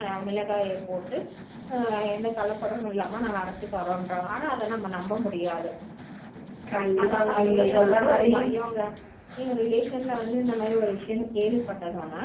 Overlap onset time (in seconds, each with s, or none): 7.1 s